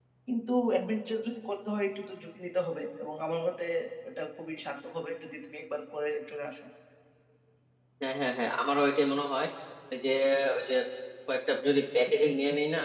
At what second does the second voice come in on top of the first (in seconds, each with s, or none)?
none